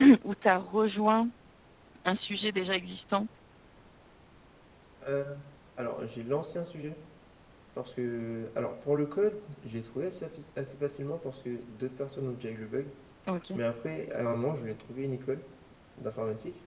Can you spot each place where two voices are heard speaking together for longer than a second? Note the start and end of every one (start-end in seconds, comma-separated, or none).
none